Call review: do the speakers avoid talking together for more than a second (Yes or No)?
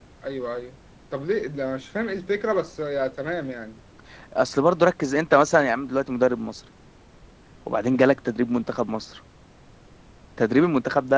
Yes